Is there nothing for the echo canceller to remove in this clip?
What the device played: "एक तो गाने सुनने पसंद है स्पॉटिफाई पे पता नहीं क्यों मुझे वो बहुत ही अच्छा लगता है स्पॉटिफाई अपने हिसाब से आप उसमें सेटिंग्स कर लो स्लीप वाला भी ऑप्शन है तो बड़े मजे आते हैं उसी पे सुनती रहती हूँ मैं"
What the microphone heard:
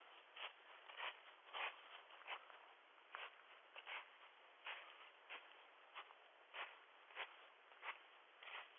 Yes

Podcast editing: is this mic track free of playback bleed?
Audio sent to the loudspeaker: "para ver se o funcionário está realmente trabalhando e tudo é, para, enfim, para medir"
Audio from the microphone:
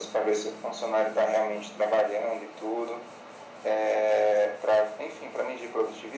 No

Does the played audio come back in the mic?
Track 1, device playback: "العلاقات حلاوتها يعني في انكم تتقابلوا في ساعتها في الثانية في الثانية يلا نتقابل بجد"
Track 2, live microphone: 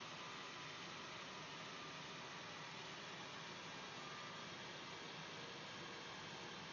No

